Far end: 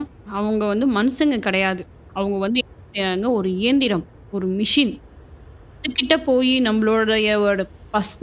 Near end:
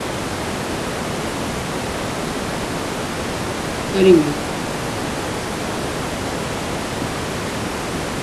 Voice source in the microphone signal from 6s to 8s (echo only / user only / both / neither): neither